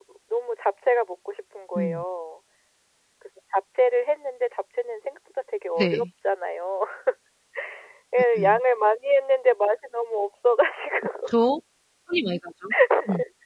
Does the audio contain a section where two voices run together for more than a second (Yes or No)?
No